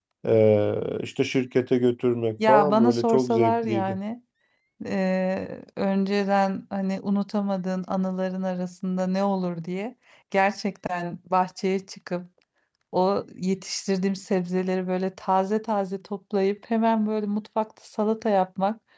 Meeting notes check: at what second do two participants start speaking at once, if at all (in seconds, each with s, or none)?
2.4 s